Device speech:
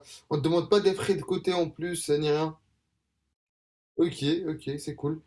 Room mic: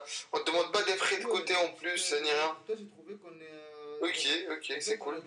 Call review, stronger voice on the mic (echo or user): echo